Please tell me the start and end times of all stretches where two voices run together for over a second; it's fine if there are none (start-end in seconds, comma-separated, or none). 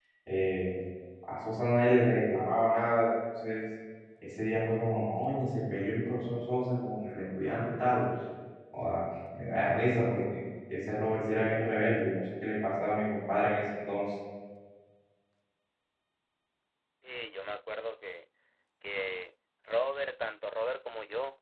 none